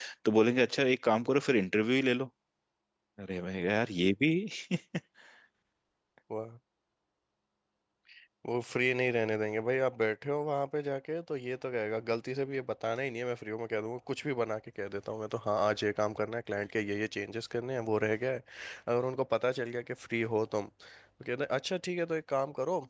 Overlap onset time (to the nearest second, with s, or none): none